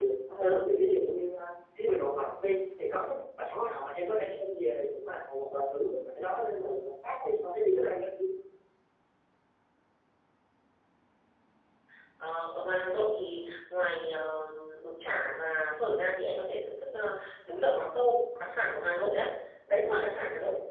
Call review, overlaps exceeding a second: none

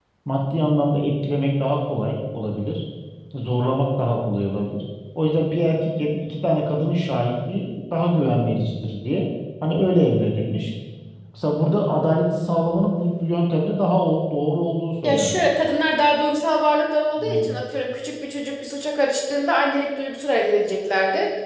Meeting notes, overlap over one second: none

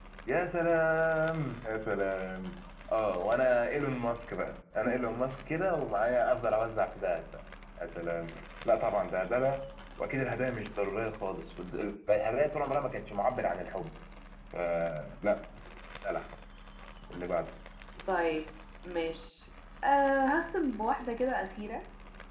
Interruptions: none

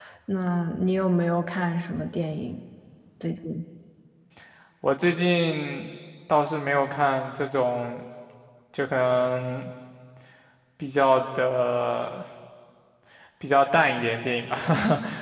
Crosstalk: none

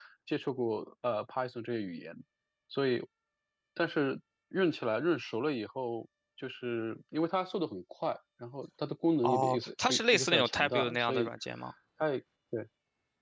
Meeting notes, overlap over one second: present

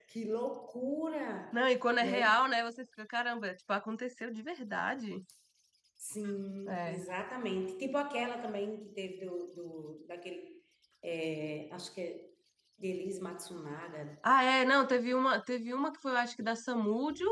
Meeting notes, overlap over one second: none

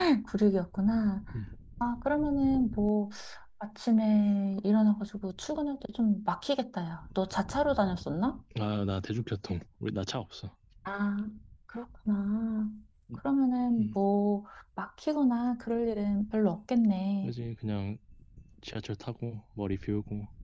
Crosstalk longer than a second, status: none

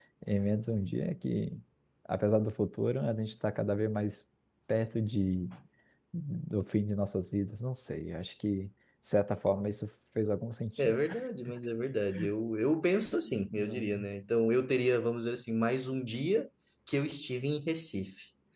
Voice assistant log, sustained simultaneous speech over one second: none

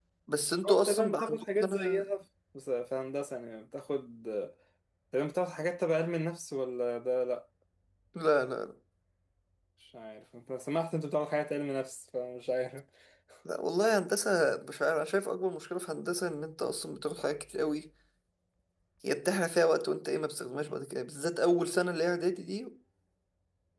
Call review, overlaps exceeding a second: present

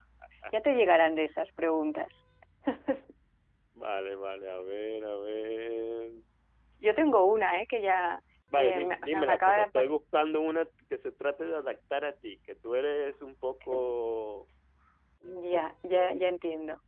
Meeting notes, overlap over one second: present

